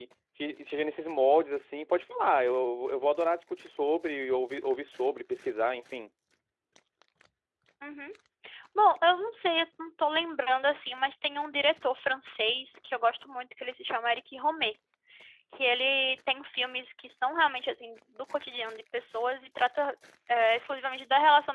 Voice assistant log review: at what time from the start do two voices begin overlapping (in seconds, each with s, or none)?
none